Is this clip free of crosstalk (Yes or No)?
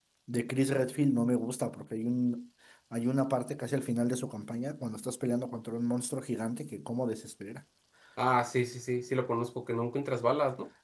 Yes